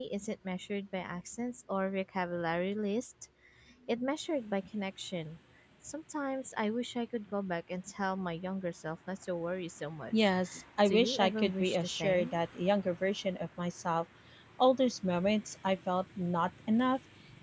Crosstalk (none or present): present